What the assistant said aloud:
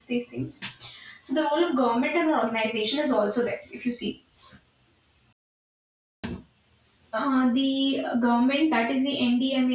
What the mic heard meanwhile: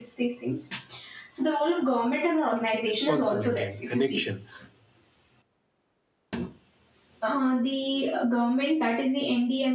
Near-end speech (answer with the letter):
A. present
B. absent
A